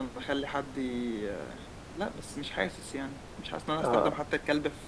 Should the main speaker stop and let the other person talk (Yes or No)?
No